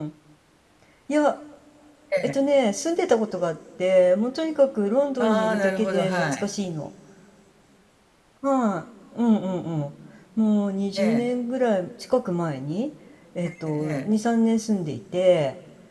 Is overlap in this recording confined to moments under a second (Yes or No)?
No